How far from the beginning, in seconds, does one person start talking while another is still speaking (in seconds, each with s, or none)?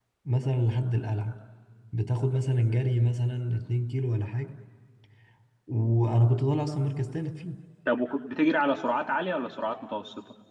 none